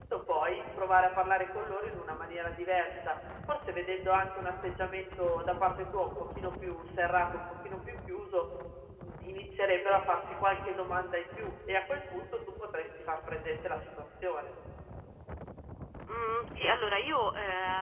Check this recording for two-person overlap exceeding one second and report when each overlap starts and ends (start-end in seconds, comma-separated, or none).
none